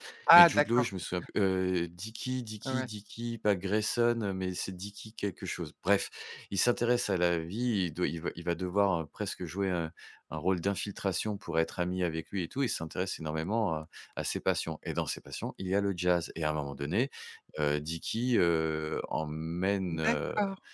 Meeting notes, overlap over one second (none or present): none